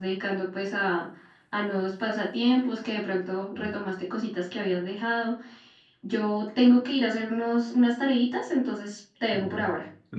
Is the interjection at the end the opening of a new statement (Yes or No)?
Yes